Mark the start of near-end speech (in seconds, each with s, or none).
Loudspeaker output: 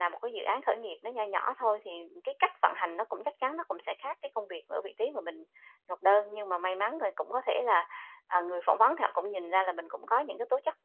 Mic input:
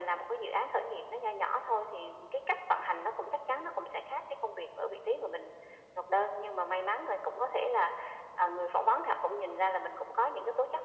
none